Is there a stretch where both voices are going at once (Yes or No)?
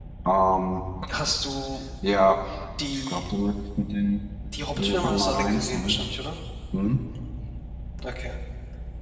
Yes